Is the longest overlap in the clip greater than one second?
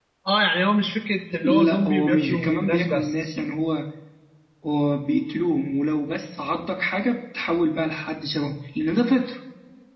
Yes, from 1.4 s

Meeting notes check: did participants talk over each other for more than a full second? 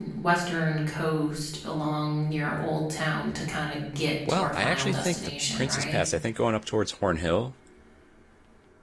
Yes, from 4.2 s

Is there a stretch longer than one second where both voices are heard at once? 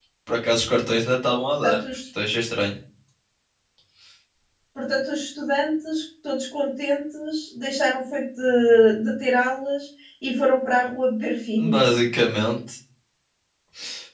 No

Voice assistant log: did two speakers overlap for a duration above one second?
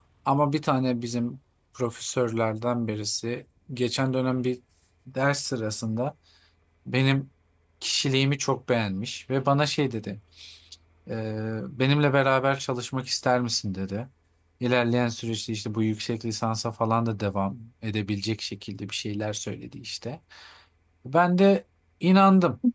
No

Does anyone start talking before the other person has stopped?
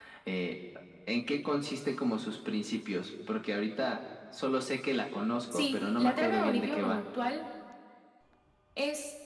Yes, from 5.5 s

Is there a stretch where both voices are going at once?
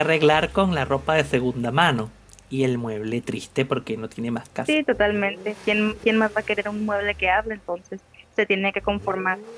No

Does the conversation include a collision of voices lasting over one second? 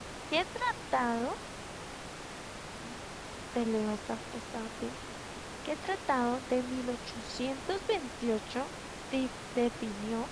No

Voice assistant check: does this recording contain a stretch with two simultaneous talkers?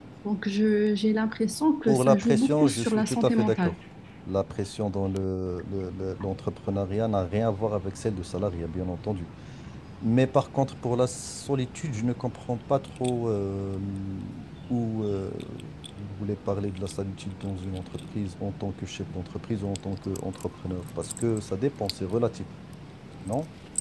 Yes, from 1.8 s

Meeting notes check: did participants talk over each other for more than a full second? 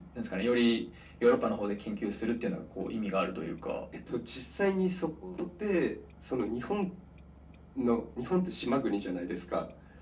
No

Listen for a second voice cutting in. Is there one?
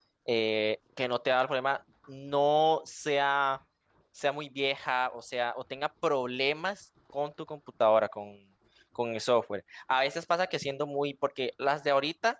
No

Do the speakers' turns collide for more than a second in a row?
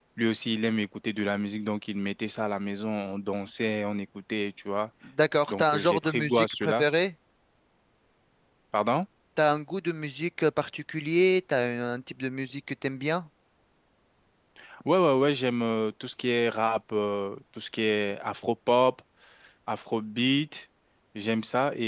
Yes, from 5.5 s

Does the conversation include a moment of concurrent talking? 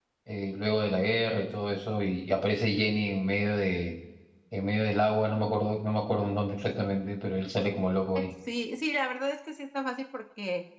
No

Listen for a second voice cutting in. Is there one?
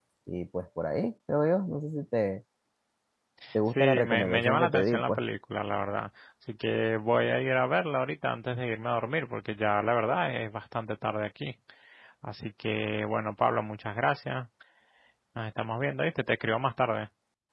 Yes, from 3.7 s

